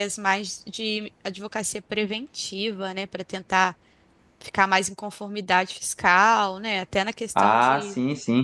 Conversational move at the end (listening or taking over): taking over